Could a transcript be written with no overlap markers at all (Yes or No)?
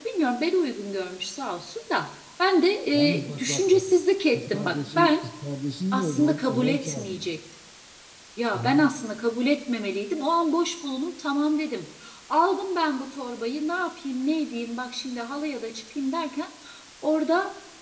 No